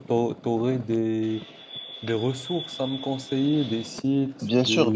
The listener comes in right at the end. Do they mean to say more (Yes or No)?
Yes